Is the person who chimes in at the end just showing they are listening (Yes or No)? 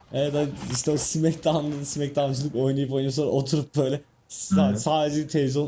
Yes